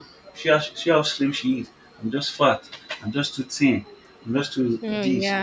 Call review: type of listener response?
listening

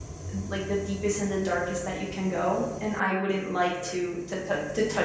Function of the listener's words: listening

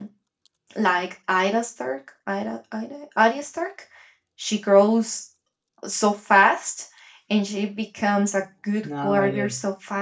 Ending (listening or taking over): listening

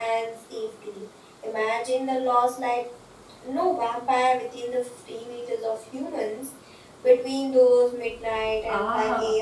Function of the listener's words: taking over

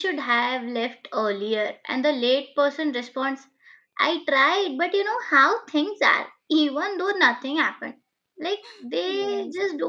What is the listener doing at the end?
listening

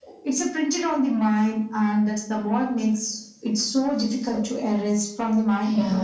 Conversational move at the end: taking over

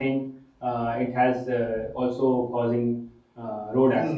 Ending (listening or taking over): taking over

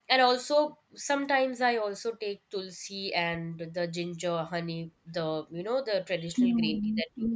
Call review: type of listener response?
taking over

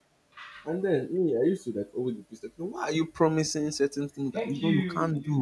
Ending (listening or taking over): taking over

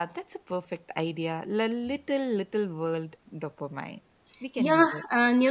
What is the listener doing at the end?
taking over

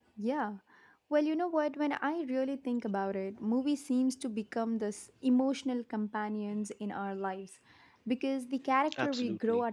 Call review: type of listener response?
listening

